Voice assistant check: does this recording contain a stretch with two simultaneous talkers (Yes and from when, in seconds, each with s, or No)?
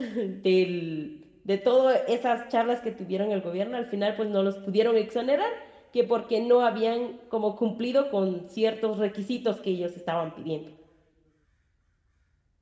No